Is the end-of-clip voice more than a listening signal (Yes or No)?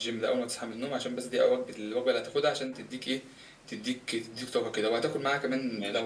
No